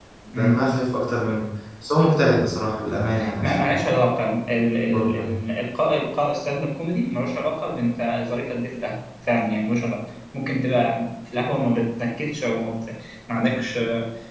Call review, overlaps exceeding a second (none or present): none